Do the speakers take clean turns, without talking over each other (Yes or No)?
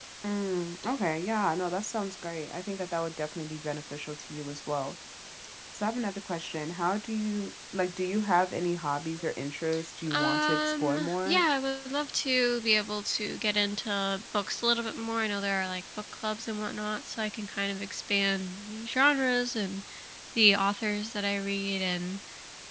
No